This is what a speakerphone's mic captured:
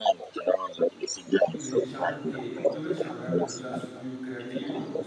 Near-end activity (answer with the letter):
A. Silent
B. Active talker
B